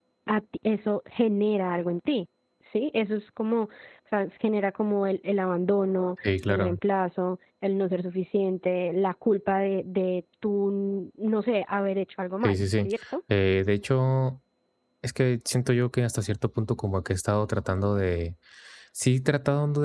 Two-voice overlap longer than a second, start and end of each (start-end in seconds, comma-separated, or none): none